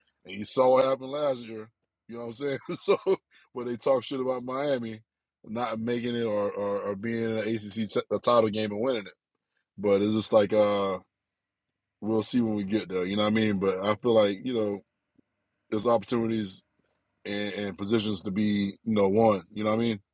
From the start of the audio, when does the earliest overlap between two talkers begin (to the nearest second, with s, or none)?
none